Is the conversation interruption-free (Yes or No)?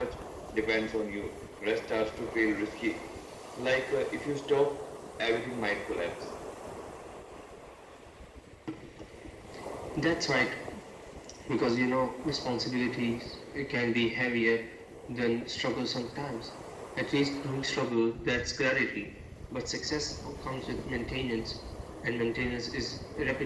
Yes